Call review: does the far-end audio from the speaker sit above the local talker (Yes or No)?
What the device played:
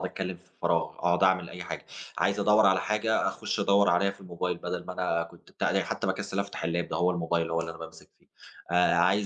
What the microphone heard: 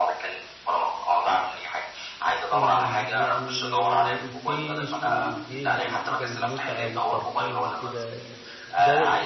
Yes